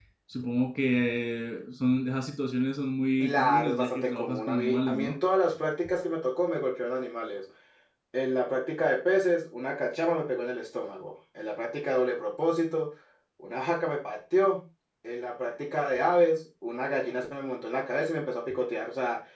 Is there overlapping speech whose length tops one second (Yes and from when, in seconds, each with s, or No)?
Yes, from 3.2 s